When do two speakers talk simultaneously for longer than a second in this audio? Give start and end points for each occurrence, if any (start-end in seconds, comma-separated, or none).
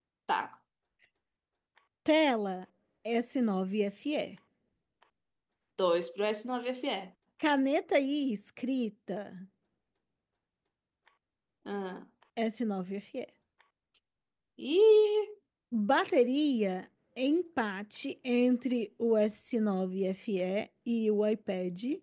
none